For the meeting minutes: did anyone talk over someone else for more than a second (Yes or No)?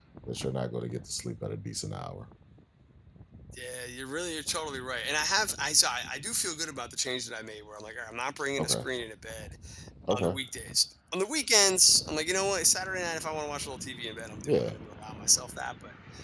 No